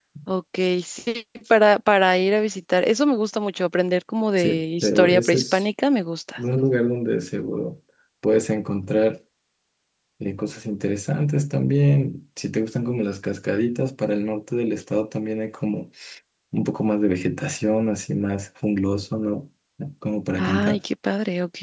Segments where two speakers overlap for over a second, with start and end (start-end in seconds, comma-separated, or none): 4.4-5.6